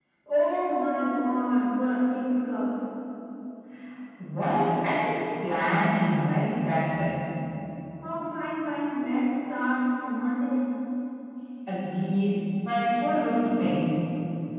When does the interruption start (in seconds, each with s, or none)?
none